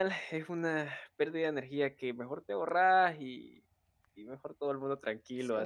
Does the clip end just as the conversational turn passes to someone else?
Yes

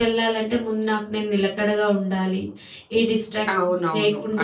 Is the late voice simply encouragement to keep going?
No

